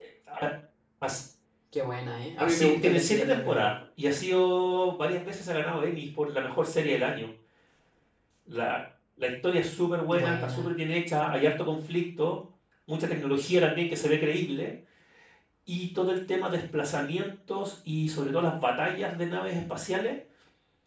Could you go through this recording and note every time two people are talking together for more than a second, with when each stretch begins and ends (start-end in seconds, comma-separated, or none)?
2.4-3.7